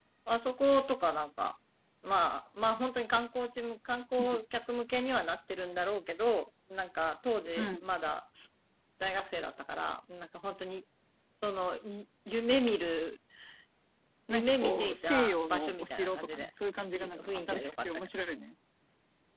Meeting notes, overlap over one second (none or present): present